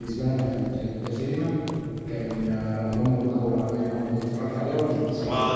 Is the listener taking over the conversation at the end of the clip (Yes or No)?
Yes